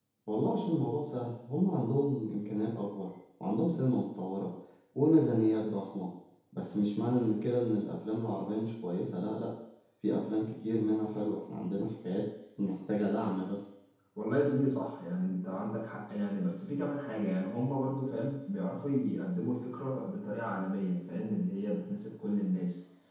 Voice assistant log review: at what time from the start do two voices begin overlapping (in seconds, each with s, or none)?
none